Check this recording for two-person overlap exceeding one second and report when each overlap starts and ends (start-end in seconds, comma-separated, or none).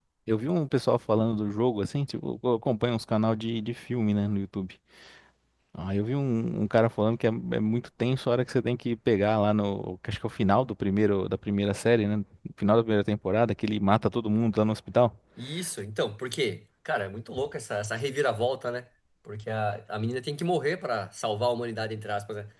none